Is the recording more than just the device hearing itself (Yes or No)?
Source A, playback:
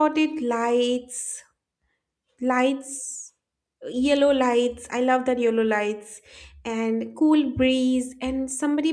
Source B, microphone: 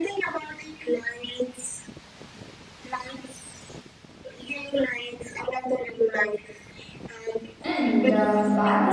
Yes